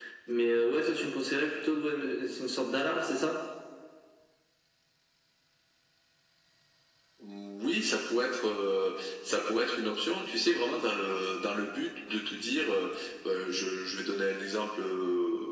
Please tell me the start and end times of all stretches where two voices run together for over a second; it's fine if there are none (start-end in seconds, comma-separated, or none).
none